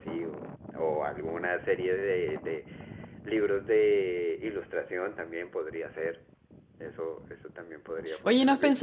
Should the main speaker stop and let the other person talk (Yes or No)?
Yes